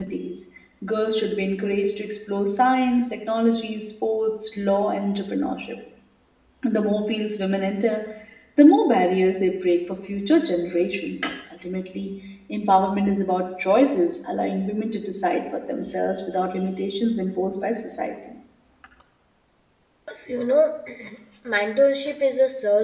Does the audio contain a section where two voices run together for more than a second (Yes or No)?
No